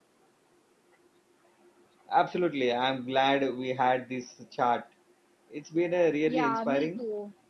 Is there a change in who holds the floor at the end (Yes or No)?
Yes